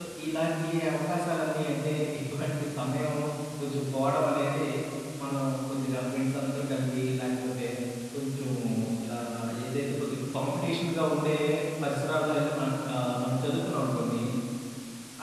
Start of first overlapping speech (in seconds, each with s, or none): none